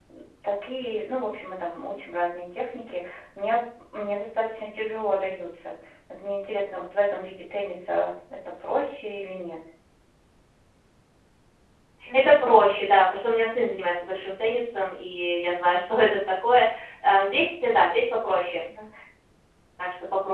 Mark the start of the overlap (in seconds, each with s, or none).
none